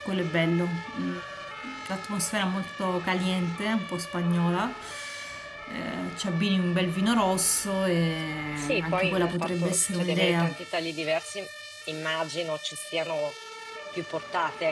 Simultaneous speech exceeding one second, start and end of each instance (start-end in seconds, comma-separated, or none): 8.6-10.6